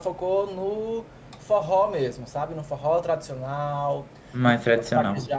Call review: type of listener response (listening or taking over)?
listening